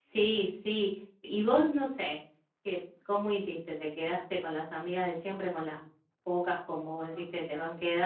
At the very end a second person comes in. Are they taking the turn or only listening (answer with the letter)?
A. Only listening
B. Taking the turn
A